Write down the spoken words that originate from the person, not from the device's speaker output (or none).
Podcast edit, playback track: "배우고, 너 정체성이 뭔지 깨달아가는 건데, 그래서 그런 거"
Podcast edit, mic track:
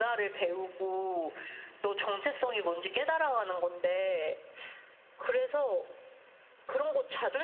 none